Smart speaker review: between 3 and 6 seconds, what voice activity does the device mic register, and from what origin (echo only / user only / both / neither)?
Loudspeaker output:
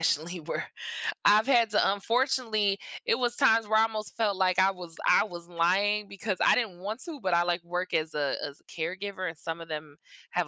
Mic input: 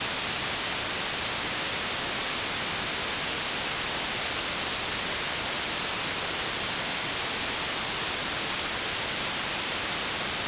neither